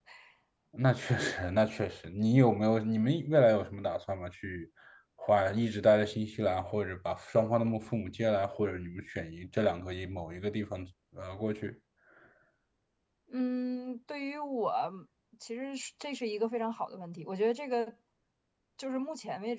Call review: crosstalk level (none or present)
none